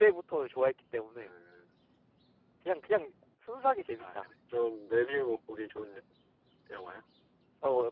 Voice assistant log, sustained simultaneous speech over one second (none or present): none